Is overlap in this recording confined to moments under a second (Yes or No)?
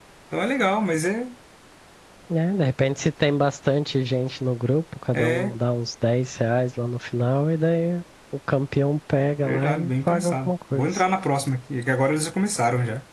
No